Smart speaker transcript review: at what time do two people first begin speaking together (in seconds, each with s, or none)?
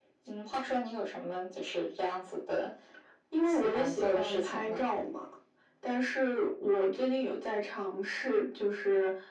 3.4 s